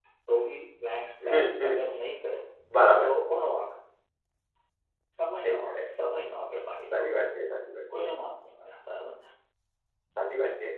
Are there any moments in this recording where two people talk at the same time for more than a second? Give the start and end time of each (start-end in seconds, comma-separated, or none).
none